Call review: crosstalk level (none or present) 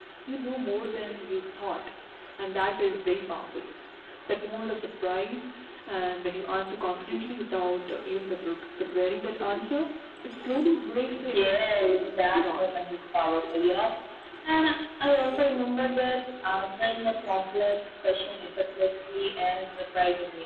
present